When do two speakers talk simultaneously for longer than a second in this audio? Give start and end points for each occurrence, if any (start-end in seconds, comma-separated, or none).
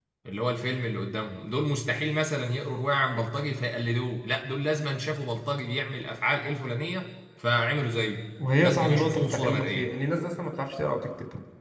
8.6-9.9